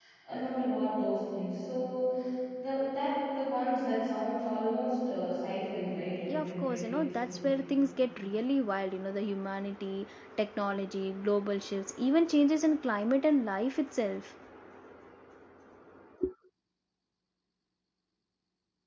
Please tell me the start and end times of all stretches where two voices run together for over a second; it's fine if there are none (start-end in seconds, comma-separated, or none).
6.3-7.6